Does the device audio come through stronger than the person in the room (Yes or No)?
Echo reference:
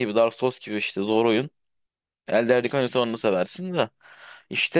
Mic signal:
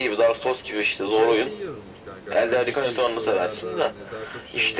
Yes